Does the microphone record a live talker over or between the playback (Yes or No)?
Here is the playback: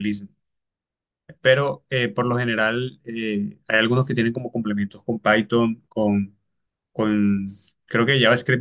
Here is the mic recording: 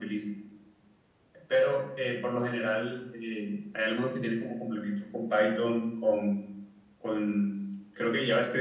No